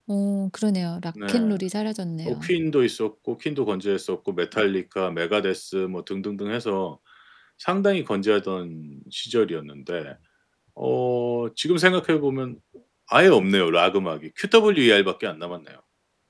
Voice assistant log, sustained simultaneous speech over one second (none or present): none